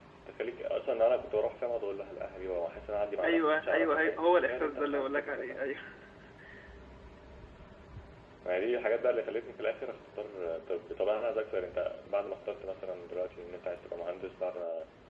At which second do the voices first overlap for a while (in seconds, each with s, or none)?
3.2 s